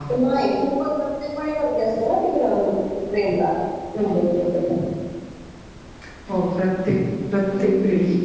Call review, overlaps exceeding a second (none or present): none